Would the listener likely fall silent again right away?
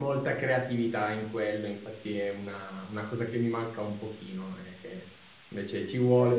Yes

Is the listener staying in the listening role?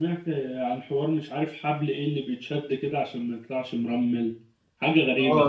No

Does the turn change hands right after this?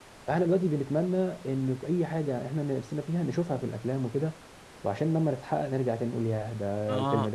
Yes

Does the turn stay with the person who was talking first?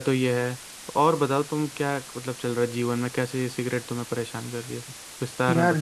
No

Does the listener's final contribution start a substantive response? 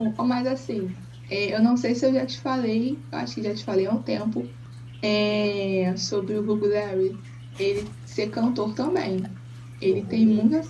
No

